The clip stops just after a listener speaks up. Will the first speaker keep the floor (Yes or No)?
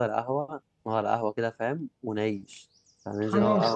No